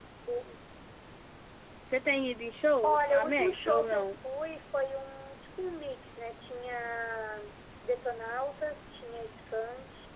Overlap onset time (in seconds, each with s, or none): 2.8 s